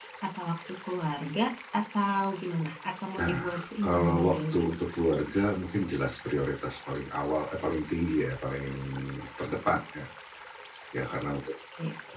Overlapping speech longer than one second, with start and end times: 3.2-4.6

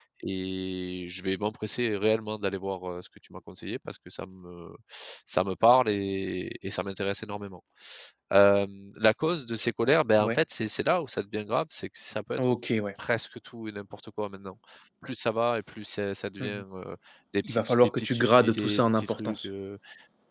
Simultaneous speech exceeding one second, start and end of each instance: 17.4-19.5

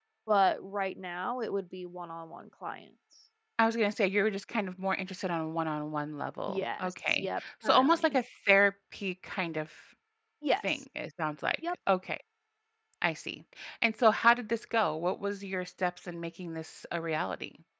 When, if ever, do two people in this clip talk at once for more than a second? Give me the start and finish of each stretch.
6.5-8.2

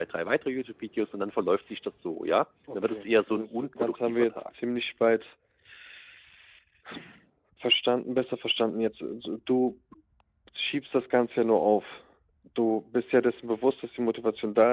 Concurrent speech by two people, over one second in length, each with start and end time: 2.7-4.4

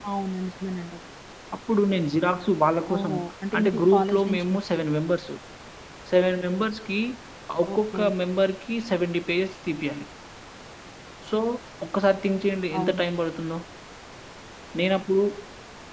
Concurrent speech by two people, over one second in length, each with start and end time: 3.6-4.8

